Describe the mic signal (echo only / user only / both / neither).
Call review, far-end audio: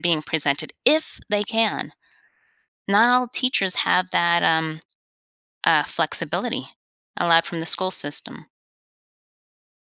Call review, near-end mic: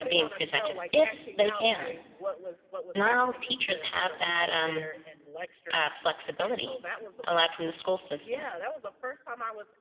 both